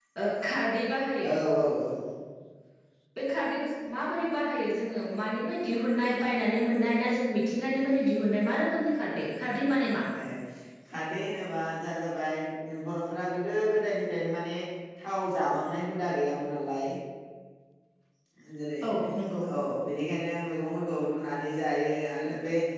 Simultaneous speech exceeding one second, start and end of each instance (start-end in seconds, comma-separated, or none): none